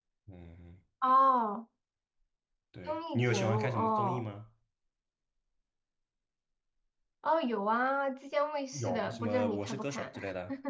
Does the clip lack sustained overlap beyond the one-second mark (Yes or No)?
No